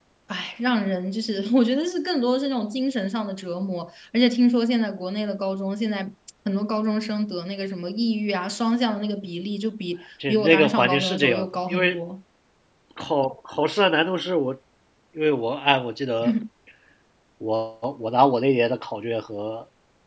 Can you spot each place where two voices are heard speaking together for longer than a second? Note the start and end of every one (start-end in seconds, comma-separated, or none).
10.3-12.0